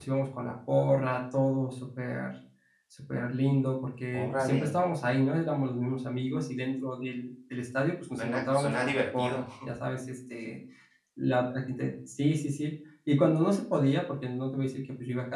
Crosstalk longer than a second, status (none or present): present